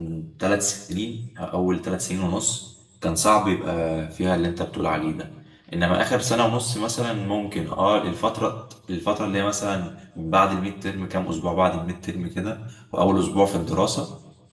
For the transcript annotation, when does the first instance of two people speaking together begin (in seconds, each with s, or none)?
none